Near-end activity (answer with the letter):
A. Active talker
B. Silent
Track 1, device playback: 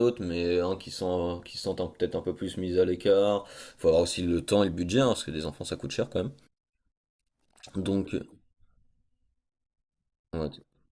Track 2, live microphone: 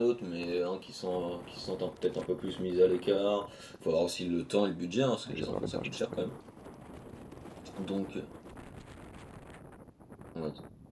A